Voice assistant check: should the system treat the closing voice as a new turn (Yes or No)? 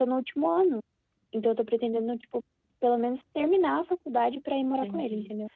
Yes